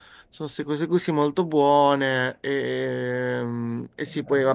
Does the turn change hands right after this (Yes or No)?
No